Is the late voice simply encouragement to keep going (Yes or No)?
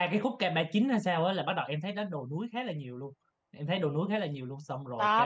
No